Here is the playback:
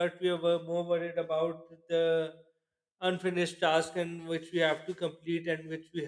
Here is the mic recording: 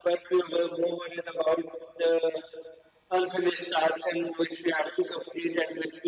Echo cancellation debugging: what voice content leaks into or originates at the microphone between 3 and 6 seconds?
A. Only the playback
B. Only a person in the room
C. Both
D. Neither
A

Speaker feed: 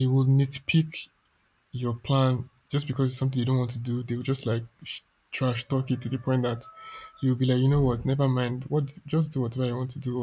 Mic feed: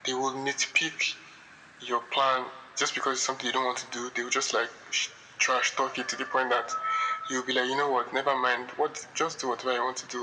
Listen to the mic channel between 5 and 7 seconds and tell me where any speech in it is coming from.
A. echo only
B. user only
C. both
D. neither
A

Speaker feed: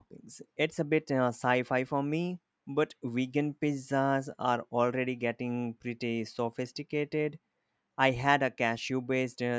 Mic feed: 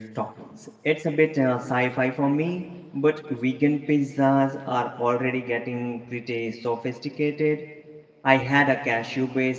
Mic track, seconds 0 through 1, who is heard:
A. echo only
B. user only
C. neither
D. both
A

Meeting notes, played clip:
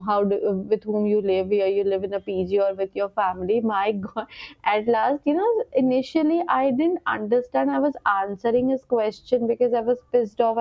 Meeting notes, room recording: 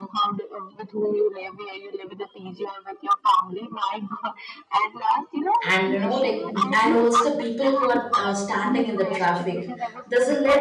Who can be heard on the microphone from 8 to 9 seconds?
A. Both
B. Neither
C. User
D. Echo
A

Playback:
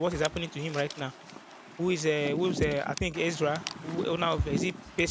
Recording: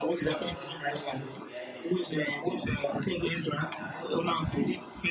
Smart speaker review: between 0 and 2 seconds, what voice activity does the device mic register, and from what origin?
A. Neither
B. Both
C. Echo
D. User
B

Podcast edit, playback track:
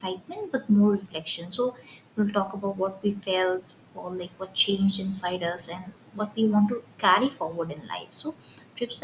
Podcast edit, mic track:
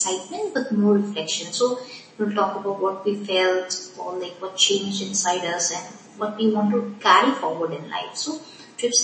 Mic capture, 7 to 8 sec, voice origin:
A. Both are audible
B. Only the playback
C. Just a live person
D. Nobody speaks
B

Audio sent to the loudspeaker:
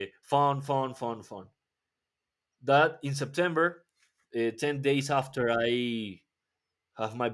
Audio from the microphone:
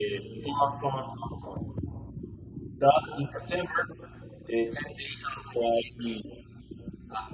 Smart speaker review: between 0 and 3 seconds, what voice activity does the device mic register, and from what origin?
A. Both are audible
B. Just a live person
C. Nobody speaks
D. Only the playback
D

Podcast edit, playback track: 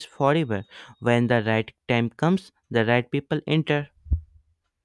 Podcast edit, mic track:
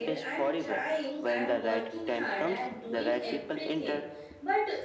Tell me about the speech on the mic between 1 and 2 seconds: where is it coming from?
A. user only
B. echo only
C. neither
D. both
D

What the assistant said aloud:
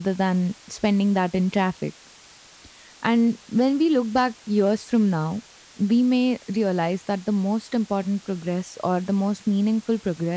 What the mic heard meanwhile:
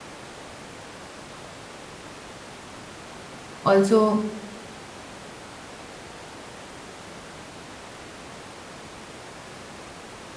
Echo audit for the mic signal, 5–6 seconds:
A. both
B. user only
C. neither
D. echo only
C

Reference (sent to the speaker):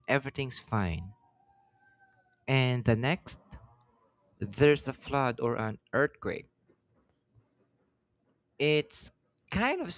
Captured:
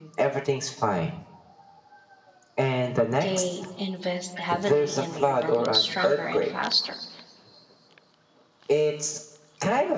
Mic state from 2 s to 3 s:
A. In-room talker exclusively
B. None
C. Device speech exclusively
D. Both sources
C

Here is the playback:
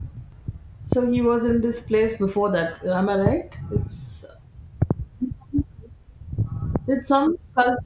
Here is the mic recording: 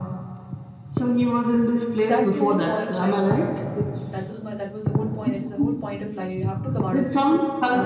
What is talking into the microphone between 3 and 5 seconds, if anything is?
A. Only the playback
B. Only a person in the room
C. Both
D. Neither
C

